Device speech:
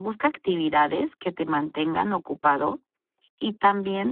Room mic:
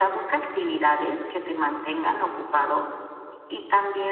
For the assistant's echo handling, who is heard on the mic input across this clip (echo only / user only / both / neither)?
echo only